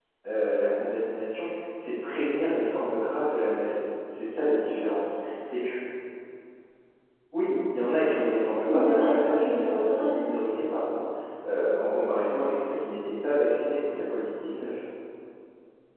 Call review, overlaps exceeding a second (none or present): present